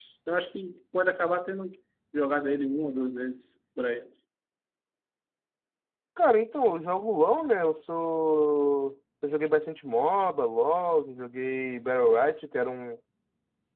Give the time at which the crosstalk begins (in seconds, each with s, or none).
none